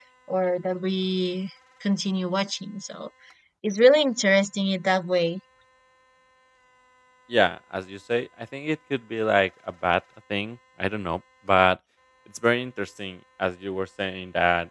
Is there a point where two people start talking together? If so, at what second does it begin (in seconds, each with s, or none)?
none